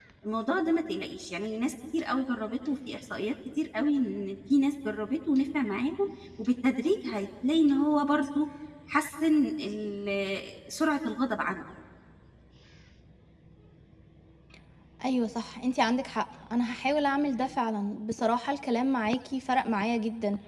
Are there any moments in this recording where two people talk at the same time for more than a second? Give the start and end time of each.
none

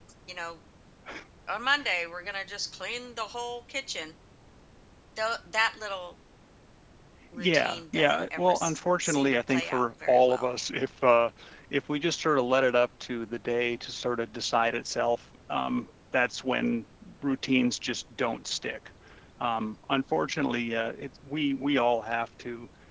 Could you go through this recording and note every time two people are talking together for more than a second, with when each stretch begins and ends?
7.3-10.5

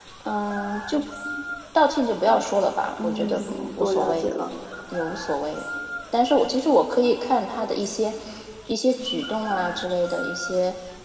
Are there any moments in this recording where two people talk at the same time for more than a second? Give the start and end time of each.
3.0-4.3

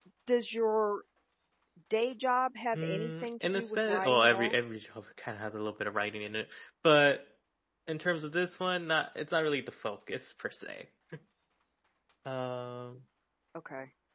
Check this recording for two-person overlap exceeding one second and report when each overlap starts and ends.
2.7-4.5

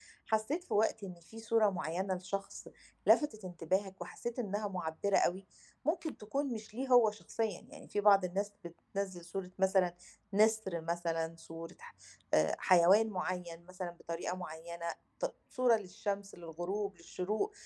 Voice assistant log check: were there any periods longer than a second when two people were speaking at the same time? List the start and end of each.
none

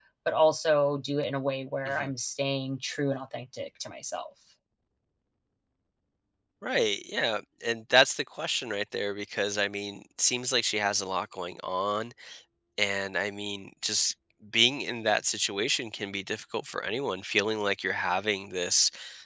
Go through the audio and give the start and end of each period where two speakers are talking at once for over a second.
none

